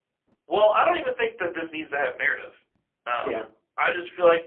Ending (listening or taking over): listening